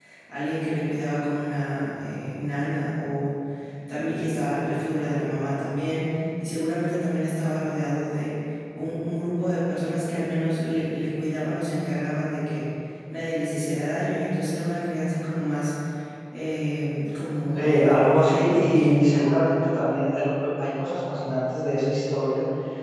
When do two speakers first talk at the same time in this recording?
17.5 s

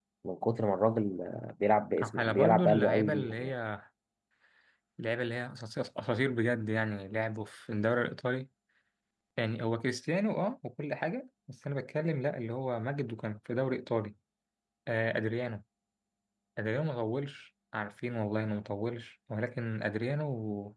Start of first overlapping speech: 2.0 s

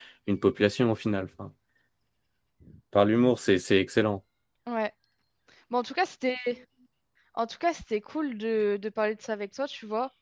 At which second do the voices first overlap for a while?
none

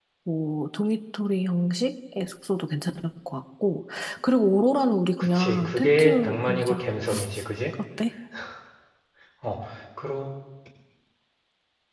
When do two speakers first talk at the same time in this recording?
5.2 s

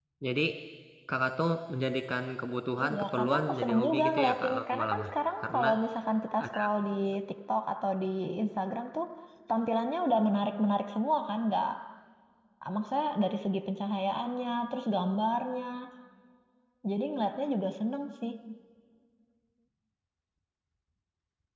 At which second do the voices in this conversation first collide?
2.8 s

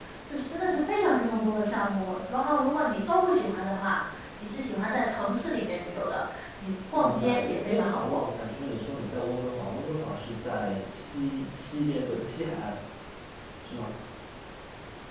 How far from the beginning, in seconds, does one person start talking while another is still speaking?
6.9 s

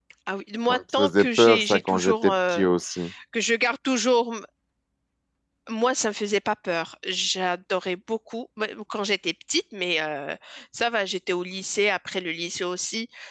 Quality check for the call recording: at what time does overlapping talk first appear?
0.7 s

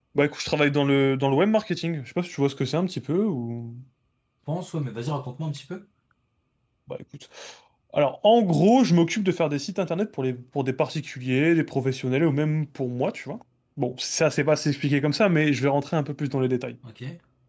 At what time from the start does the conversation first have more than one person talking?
none

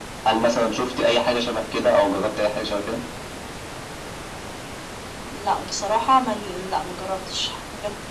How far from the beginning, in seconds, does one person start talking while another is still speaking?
none

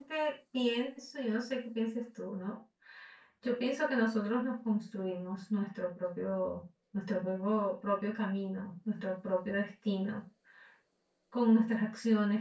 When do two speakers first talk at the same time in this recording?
none

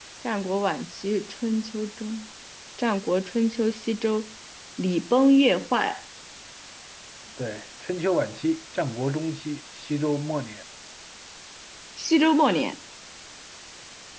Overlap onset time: none

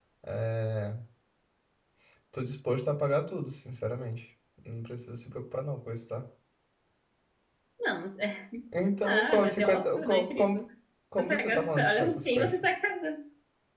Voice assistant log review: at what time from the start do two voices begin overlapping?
9.0 s

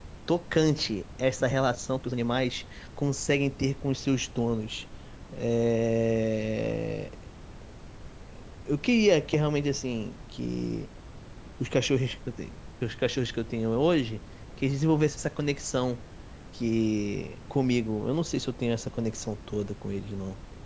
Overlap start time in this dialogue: none

